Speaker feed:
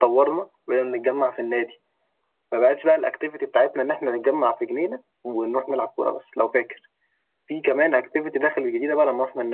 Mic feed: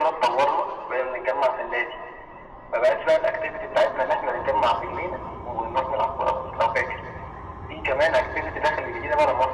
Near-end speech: none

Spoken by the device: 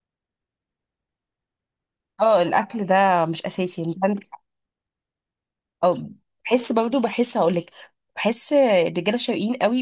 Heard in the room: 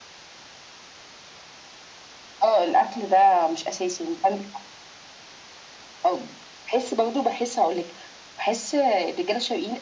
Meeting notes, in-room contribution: none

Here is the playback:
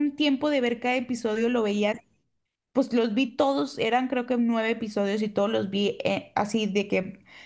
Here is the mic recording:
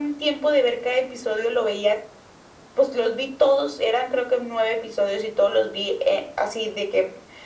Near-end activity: none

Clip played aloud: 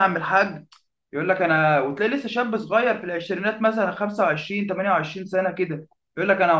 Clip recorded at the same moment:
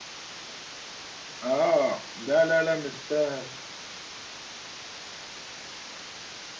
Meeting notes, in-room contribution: present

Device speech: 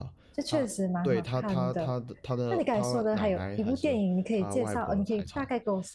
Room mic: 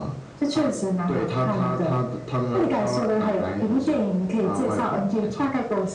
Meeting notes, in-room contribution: none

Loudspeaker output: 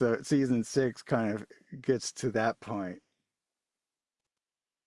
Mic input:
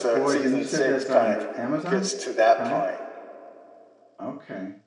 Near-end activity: present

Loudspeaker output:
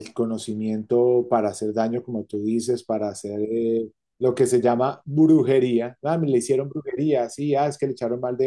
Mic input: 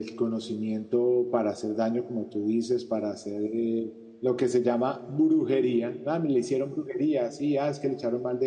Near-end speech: none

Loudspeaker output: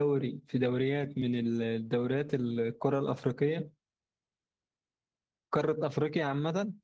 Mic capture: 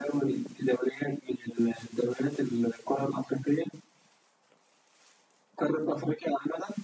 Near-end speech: none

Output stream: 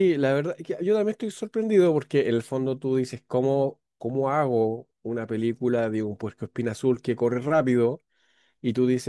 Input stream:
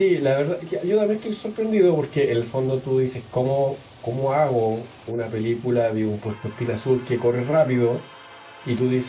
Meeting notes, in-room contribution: none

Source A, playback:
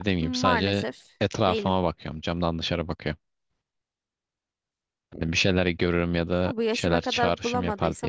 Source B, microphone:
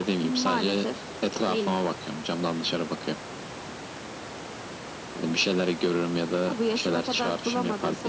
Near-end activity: none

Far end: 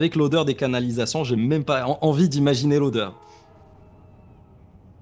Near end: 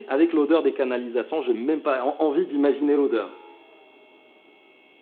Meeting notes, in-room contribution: none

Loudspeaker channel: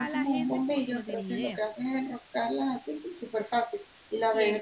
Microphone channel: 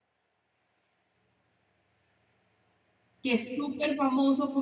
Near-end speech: present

